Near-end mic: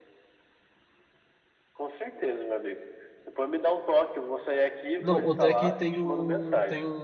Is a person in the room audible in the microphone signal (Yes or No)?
Yes